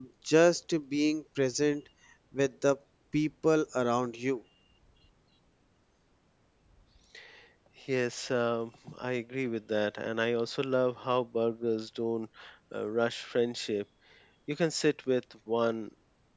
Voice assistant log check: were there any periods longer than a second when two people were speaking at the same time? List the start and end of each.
none

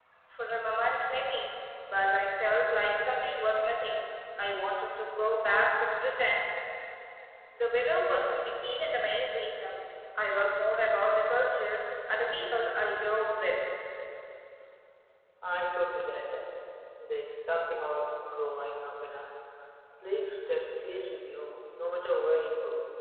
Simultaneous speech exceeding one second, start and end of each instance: none

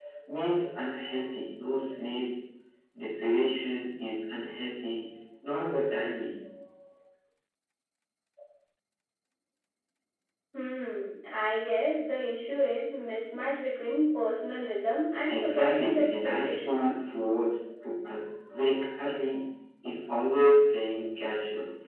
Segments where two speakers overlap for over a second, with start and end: 15.3-16.8

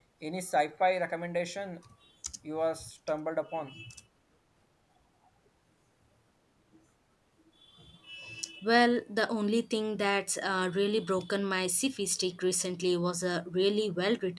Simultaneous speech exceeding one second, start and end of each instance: none

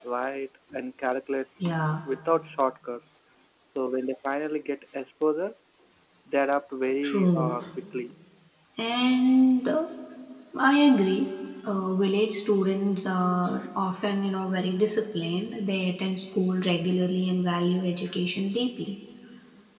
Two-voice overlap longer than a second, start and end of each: none

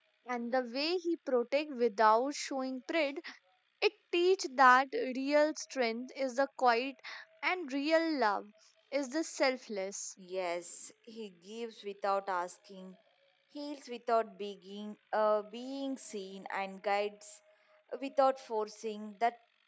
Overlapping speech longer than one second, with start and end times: none

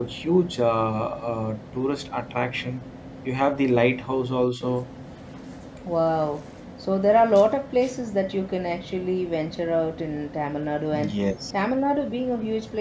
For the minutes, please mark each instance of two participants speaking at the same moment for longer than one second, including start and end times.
none

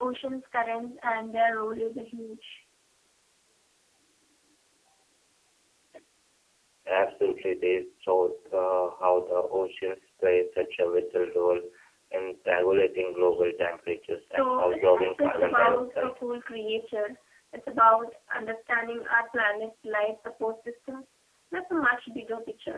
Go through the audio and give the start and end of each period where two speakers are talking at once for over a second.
14.2-16.2

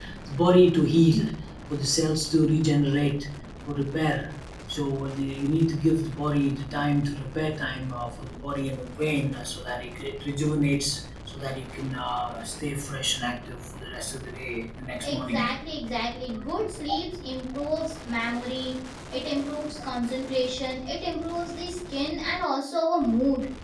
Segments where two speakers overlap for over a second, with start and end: none

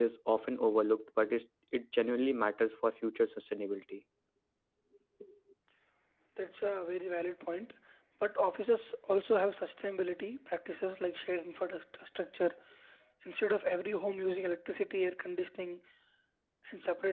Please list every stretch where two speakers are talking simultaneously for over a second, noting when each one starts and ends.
none

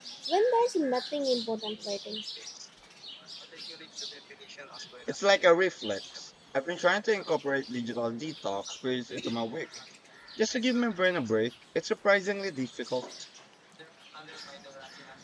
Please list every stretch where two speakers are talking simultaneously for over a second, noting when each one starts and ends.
none

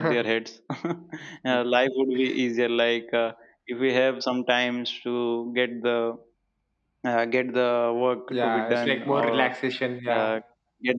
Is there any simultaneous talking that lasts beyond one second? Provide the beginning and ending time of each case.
8.3-9.5

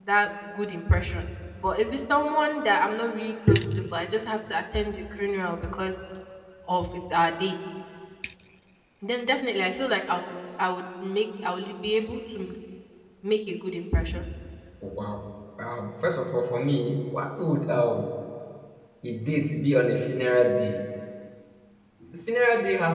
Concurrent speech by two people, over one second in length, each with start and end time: none

